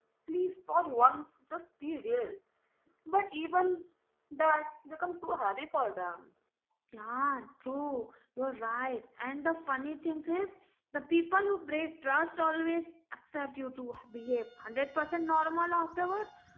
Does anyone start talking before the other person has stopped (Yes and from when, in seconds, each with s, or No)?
No